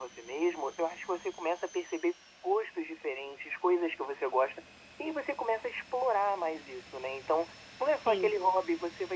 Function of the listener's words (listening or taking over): listening